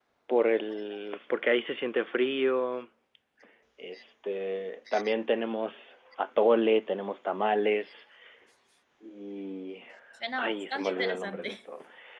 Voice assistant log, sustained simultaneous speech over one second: present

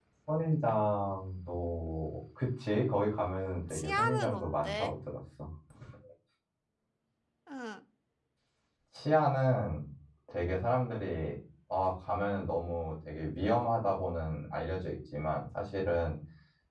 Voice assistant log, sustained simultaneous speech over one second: present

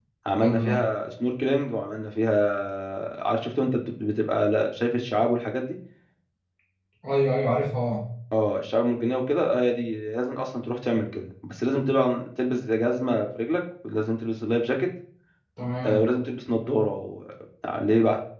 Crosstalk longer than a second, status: none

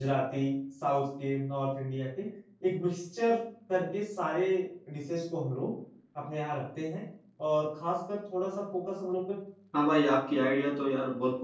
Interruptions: none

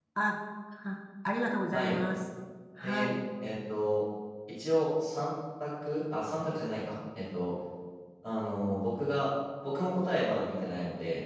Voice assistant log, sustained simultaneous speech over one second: none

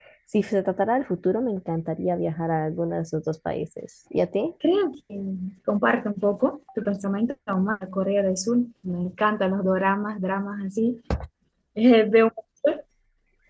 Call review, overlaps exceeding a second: none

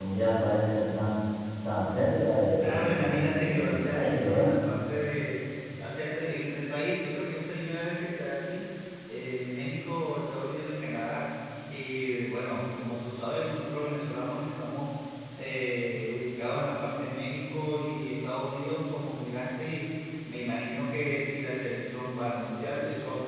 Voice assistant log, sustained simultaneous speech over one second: present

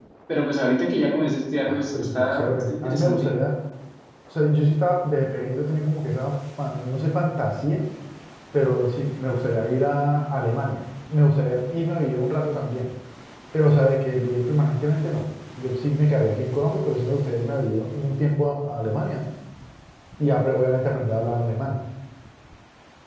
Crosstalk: present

